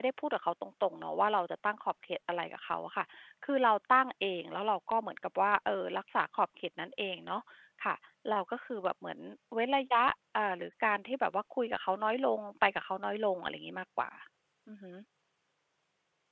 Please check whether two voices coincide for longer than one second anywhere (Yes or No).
No